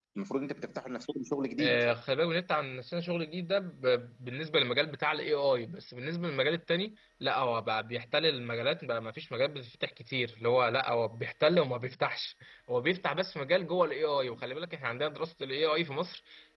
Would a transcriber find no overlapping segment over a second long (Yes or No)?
Yes